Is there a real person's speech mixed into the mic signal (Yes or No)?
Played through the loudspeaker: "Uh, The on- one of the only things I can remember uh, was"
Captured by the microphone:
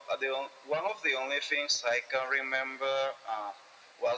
No